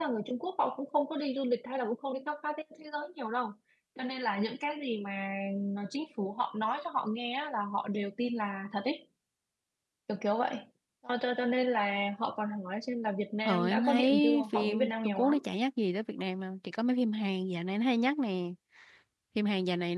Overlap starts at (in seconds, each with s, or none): 13.4 s